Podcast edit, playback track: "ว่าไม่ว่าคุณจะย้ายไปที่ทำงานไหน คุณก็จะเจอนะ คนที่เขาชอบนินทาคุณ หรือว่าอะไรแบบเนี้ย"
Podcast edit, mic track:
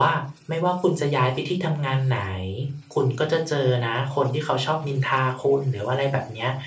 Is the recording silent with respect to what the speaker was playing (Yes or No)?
No